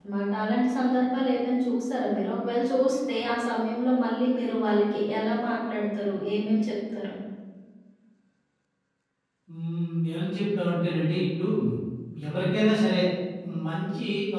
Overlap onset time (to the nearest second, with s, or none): none